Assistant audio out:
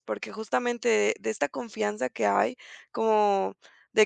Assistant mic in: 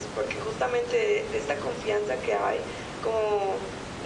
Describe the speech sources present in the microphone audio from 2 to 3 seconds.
echo only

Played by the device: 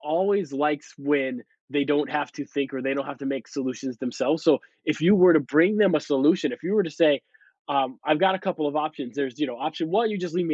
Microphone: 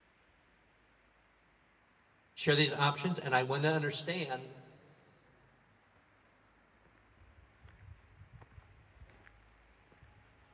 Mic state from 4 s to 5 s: user only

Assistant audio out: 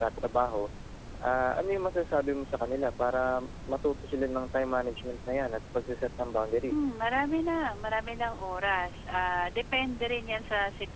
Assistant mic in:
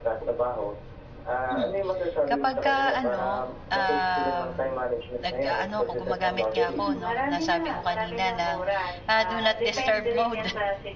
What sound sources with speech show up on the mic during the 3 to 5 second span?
both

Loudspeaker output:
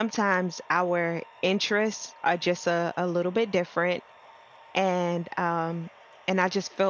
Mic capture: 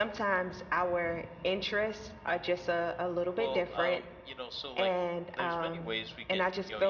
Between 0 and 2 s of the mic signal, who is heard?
echo only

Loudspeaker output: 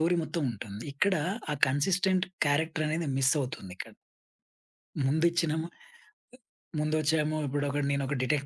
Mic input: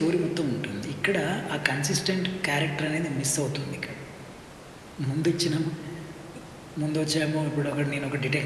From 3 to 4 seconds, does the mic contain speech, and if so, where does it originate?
echo only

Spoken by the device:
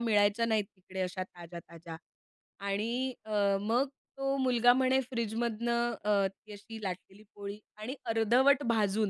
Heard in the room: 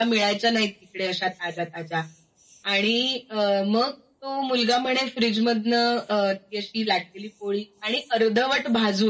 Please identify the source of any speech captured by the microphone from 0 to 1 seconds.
echo only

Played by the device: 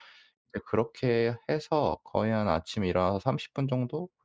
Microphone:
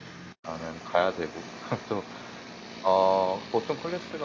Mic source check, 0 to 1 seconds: user only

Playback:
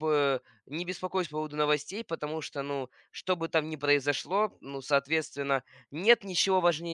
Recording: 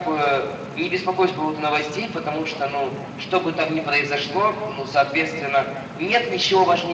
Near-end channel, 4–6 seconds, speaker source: echo only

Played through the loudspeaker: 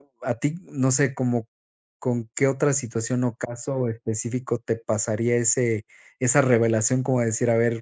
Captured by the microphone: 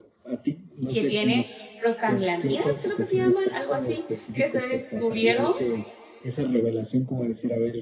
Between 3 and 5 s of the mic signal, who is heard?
both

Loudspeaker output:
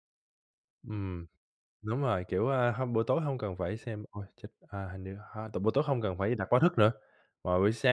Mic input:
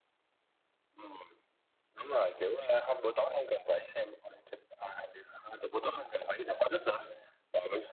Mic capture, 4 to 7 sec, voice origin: echo only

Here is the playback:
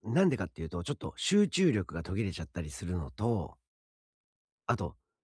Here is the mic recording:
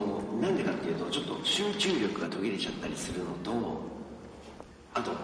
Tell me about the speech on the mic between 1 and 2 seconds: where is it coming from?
echo only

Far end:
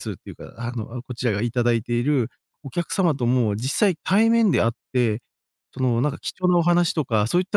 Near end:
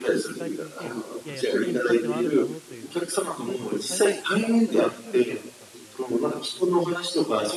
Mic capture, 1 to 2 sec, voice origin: both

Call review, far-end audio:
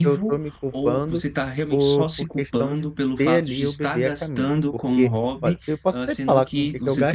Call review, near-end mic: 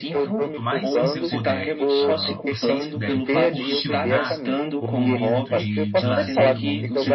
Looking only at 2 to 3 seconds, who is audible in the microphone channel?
both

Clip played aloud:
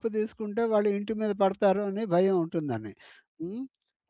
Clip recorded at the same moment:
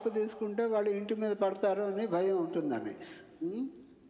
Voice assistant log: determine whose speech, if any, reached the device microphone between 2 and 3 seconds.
echo only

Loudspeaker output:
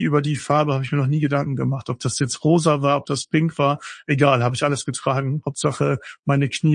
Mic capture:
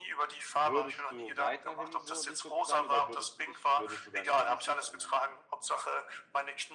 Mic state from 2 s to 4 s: both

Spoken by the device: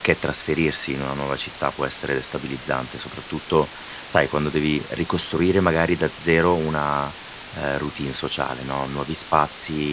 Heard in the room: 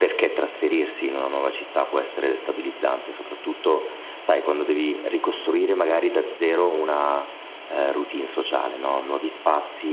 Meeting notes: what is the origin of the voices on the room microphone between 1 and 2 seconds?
echo only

